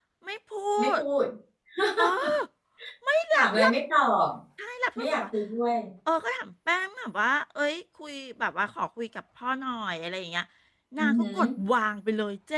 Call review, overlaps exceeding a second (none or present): none